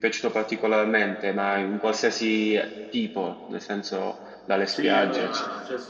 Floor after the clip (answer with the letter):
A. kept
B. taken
B